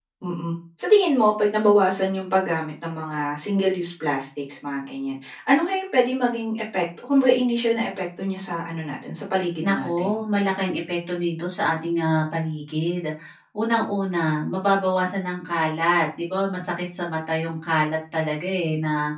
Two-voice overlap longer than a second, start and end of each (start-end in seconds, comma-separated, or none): none